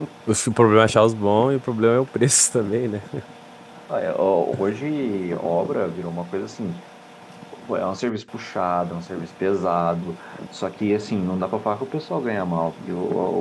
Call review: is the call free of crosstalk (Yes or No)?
Yes